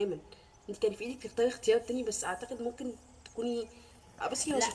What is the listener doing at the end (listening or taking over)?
taking over